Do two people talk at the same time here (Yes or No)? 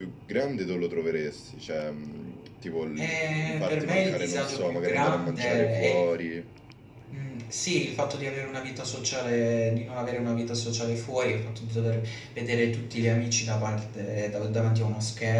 Yes